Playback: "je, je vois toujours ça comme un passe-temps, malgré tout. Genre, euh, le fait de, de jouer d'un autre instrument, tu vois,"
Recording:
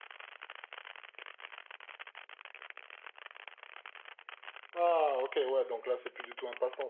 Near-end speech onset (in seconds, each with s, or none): 4.8 s